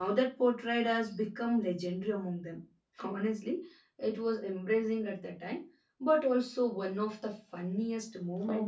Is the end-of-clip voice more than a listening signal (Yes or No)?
Yes